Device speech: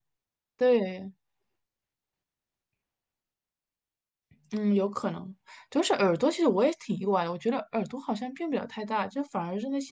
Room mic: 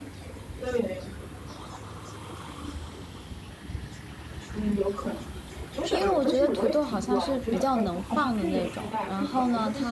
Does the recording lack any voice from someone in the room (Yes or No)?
No